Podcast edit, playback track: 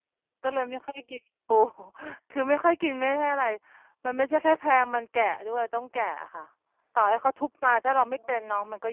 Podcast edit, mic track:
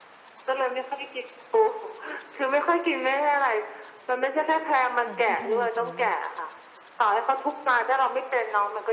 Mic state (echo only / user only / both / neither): both